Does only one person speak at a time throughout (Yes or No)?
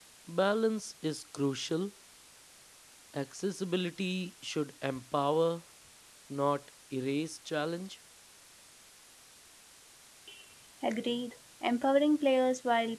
Yes